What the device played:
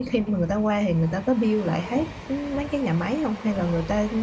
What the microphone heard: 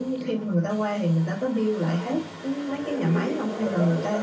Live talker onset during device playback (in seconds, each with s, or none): 2.8 s